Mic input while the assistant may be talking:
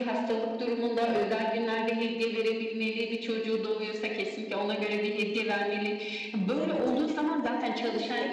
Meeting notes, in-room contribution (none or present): present